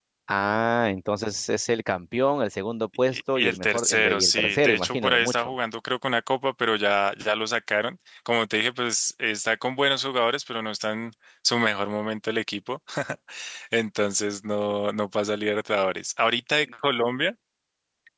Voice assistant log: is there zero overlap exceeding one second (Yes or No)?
No